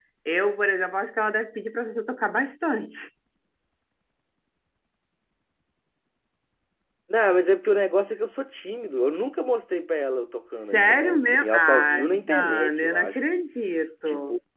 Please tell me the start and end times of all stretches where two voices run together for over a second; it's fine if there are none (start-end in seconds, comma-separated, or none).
10.7-13.2